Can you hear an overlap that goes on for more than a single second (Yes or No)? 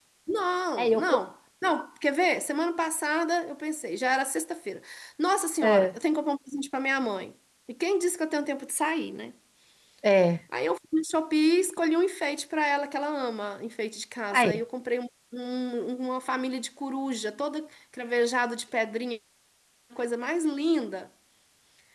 No